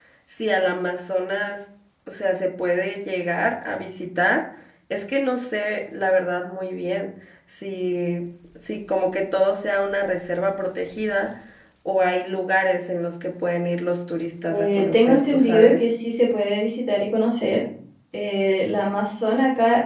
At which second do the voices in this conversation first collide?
14.5 s

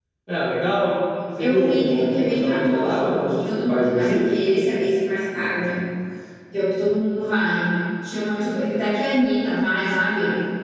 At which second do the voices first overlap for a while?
1.4 s

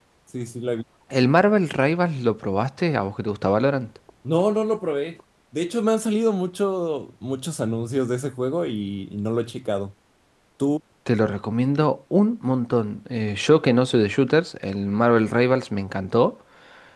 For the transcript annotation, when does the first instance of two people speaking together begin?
none

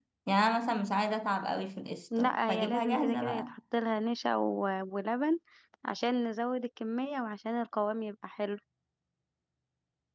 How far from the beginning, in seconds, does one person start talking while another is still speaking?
2.1 s

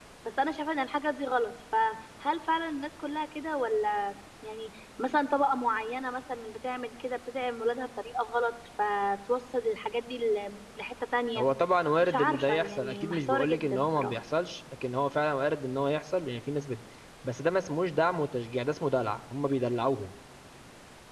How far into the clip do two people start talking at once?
12.0 s

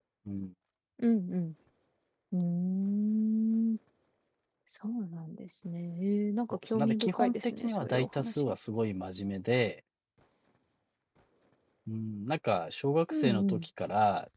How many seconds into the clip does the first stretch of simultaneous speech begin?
6.5 s

